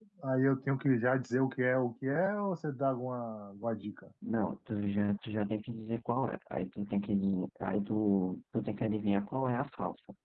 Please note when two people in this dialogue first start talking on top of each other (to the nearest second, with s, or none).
none